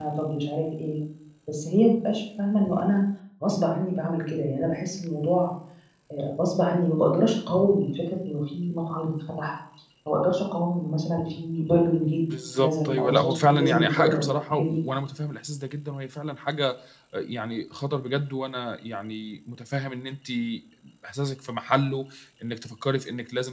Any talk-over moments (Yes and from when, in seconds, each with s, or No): Yes, from 12.6 s